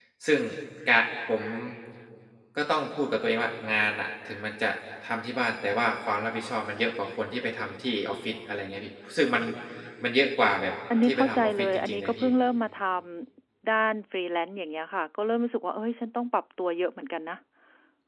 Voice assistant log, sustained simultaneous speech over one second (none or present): present